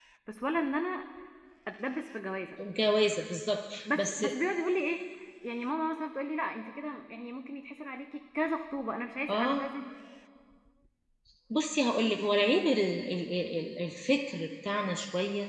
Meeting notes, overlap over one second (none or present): none